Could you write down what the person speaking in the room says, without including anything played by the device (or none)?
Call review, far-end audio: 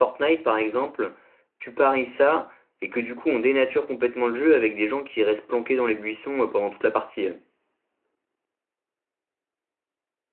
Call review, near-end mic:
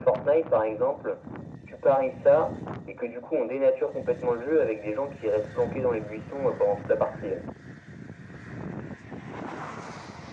none